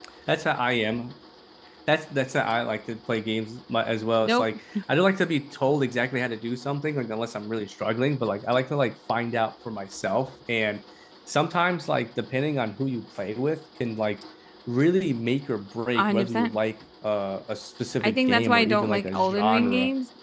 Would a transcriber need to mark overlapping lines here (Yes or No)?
Yes